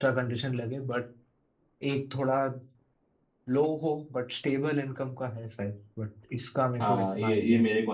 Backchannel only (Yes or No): No